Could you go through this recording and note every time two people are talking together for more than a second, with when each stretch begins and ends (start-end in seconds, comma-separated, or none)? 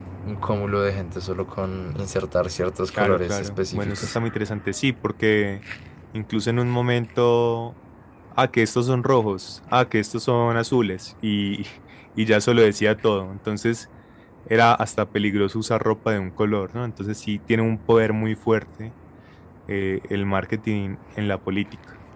2.9-4.2